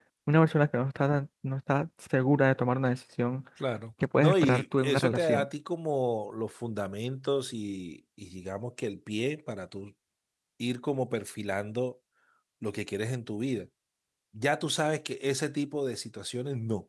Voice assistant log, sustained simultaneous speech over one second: present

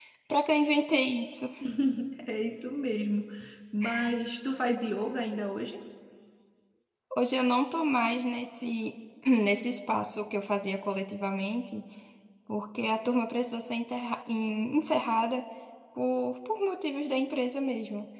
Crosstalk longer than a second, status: none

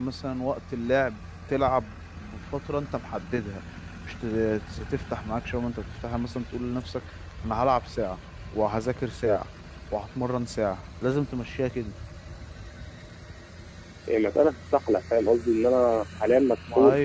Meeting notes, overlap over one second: none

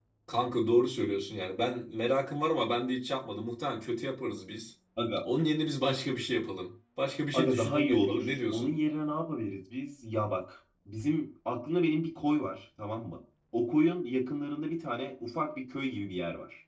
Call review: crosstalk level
present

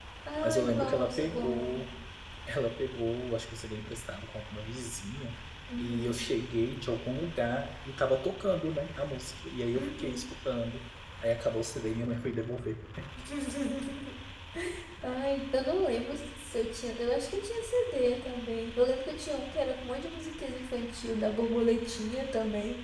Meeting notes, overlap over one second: present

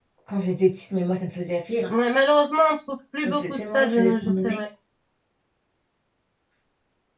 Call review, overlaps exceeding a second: present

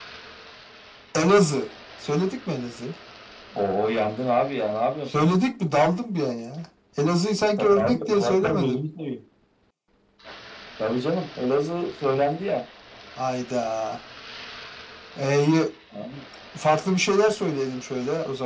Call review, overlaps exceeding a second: present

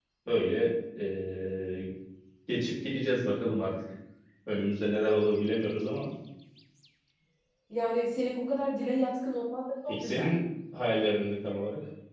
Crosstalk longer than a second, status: none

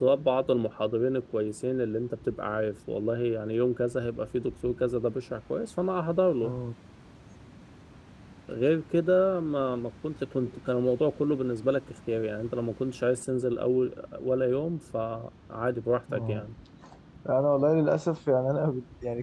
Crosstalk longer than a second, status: none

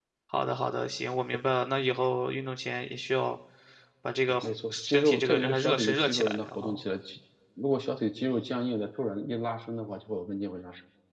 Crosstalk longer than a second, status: present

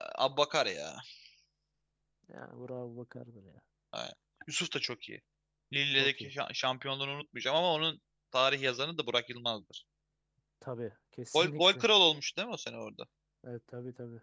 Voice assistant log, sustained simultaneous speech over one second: none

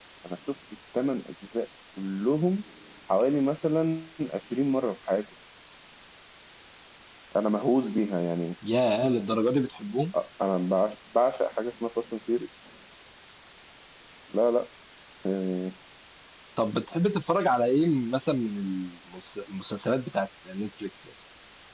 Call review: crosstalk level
none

